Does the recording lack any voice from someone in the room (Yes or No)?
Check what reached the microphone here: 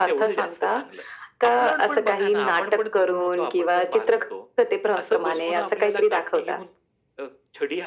Yes